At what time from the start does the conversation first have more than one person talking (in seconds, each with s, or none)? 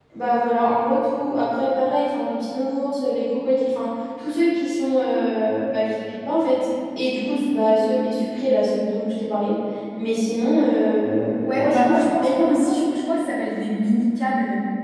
11.4 s